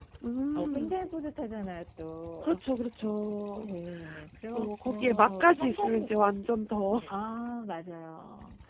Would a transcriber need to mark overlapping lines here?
Yes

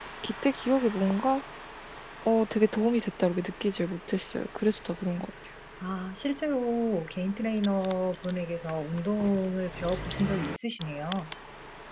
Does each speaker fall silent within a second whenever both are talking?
Yes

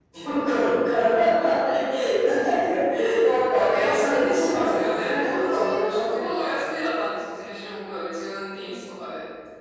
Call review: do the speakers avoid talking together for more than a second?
No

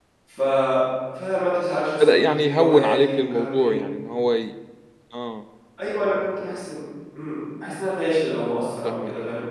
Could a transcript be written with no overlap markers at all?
No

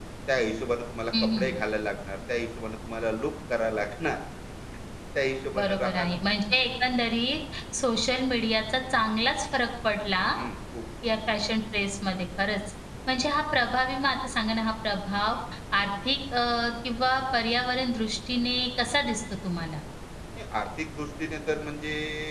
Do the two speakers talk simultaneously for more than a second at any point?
No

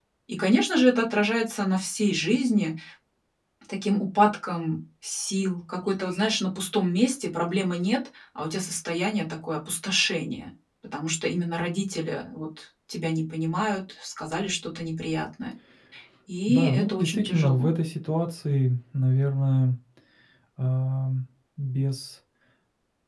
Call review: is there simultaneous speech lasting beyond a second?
Yes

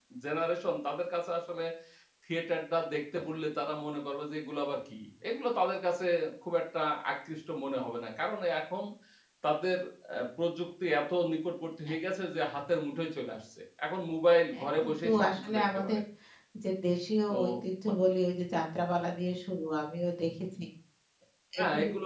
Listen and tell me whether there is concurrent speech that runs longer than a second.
Yes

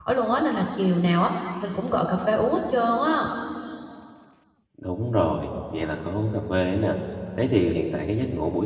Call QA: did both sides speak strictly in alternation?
Yes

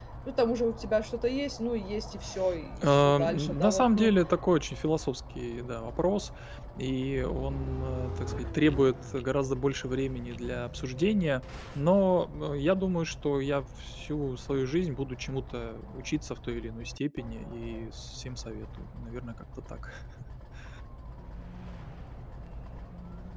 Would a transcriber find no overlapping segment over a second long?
No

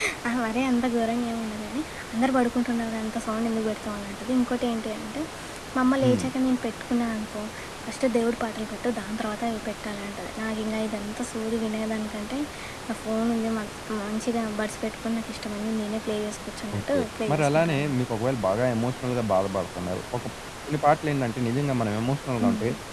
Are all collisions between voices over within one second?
No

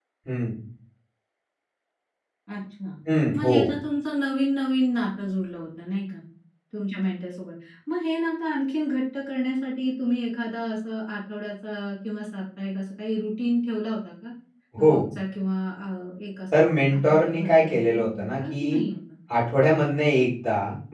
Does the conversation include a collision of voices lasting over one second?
Yes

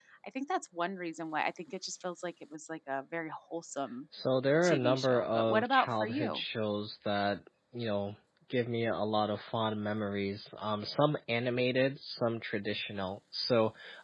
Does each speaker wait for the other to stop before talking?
No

